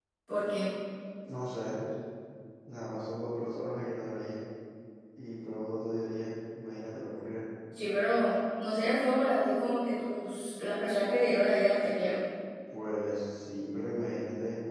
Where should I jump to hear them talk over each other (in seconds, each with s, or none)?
none